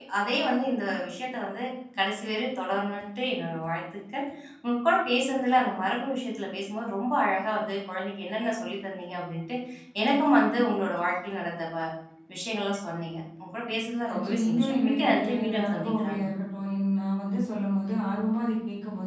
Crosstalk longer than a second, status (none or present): present